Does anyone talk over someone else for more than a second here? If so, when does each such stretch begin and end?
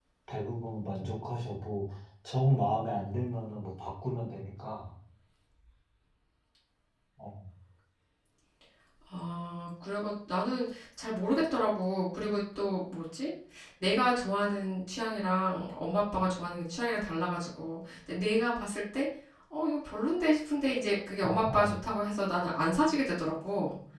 none

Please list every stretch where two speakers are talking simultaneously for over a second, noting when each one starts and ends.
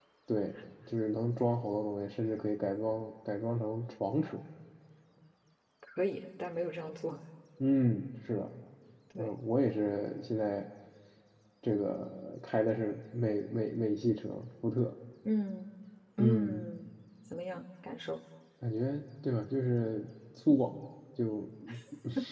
none

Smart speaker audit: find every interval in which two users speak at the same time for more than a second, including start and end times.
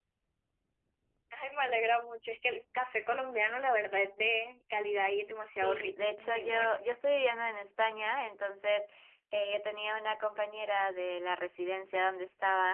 5.4-6.8

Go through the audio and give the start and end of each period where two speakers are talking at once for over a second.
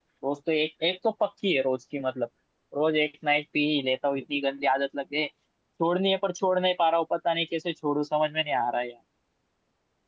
none

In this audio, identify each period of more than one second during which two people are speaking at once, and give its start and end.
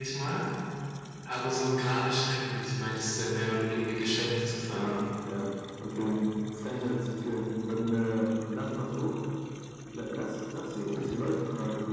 none

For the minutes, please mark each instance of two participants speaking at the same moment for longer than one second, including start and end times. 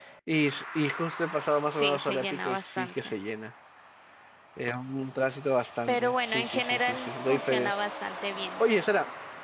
1.7-3.2, 5.9-7.8

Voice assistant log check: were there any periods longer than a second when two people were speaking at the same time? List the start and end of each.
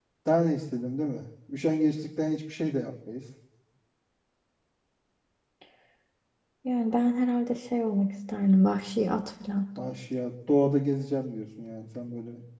none

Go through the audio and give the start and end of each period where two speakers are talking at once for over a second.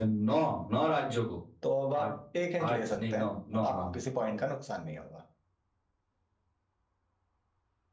2.7-4.0

